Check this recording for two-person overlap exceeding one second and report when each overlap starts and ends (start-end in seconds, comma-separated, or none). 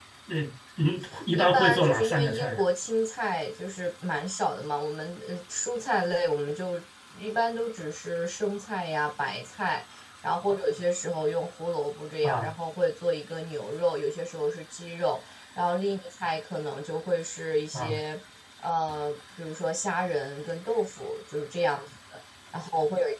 1.3-2.6